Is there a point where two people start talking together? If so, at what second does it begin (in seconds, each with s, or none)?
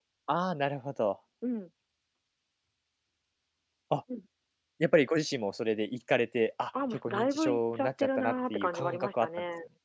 6.7 s